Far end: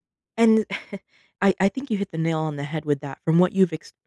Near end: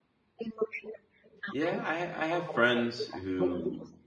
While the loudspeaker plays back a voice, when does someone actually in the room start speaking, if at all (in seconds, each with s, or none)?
1.5 s